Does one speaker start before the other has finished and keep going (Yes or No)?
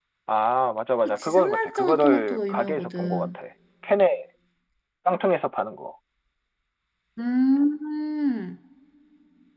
Yes